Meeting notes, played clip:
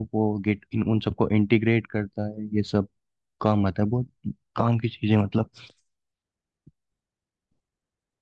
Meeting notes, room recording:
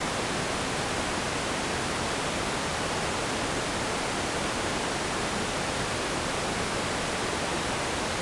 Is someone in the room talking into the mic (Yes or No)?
No